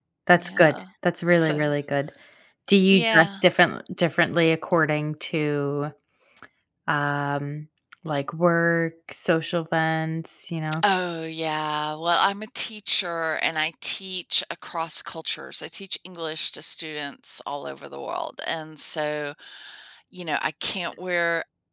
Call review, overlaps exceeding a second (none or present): none